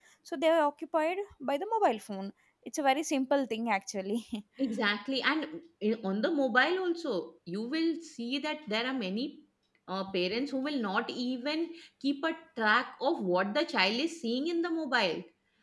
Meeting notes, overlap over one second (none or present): none